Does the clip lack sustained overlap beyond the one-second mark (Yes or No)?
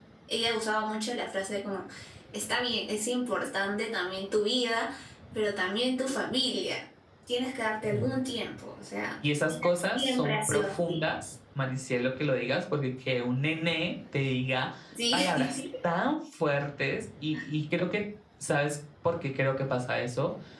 No